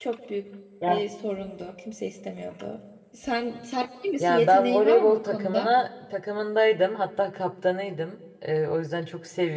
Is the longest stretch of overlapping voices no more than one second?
No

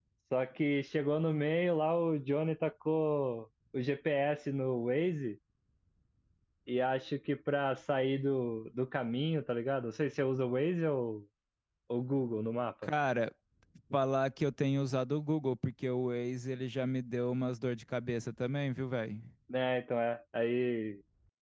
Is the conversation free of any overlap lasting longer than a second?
Yes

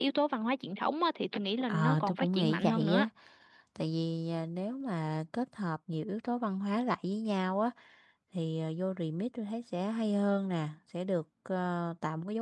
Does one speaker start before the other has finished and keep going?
Yes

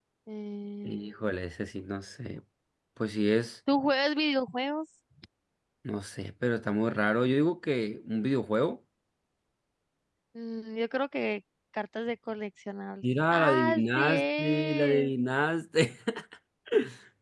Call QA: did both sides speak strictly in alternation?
No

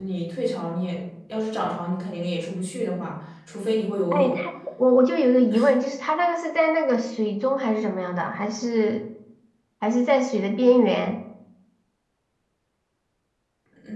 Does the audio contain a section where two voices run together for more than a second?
No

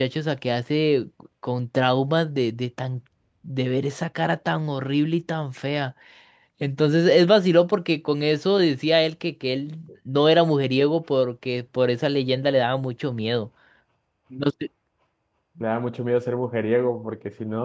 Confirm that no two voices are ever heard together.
Yes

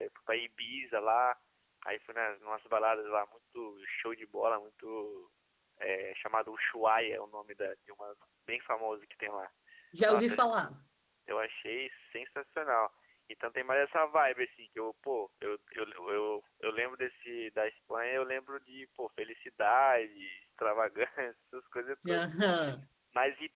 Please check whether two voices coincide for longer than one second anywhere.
No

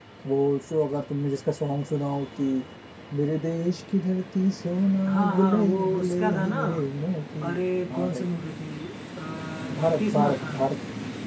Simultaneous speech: Yes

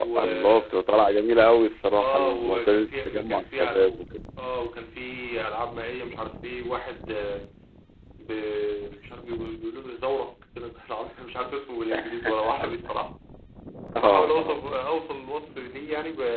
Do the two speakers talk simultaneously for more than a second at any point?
Yes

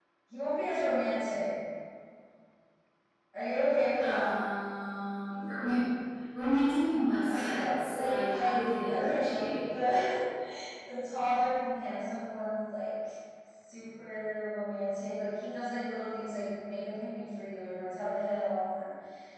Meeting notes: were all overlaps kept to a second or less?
No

